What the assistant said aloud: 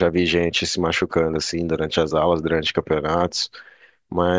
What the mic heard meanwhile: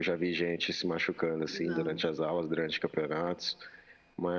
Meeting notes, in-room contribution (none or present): present